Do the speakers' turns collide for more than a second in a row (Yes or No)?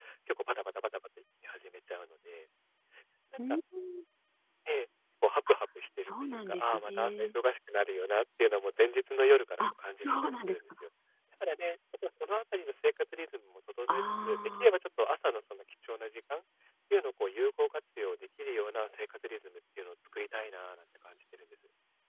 Yes